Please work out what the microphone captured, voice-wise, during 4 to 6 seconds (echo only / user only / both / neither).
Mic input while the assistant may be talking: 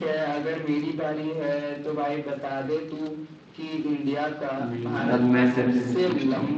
both